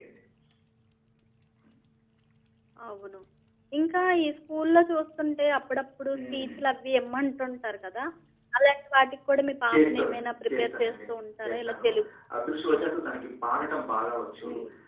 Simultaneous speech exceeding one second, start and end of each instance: 9.7-10.9

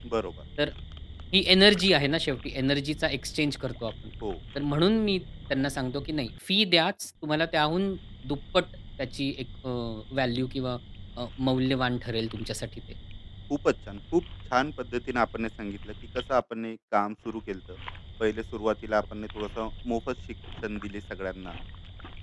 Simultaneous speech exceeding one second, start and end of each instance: none

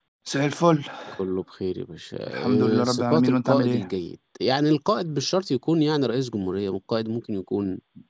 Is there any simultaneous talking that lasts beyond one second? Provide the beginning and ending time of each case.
2.3-3.8

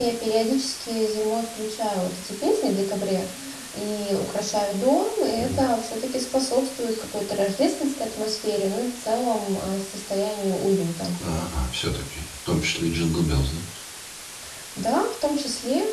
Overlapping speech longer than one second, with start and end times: none

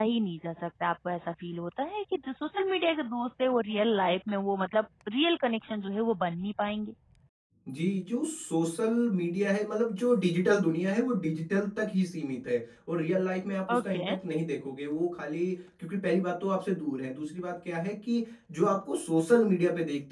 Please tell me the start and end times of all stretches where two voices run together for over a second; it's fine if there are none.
none

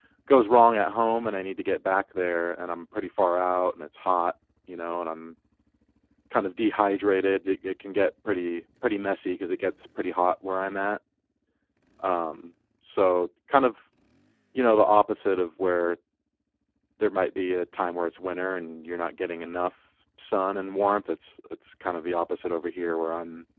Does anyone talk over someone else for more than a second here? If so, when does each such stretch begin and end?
none

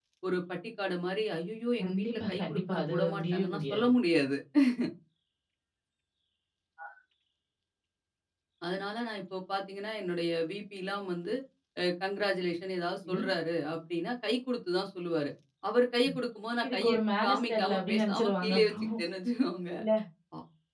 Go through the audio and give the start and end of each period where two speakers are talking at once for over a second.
1.8-3.9, 16.6-18.8

